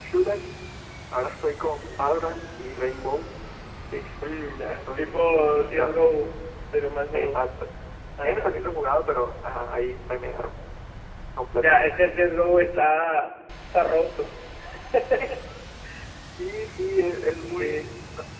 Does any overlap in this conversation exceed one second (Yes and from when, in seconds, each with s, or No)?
Yes, from 4.7 s